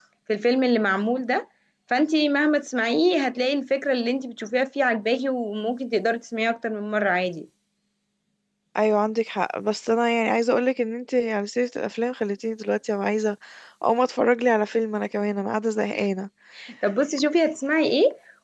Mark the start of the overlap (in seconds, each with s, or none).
none